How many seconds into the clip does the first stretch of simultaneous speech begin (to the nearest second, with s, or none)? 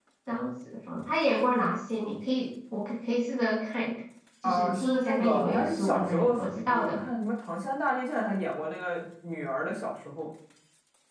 4 s